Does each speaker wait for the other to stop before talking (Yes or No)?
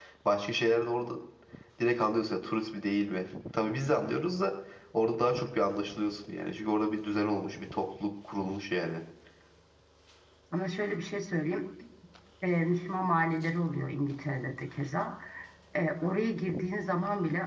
Yes